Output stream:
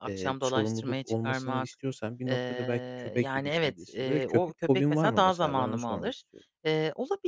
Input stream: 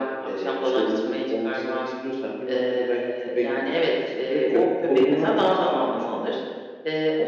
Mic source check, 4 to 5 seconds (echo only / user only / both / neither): echo only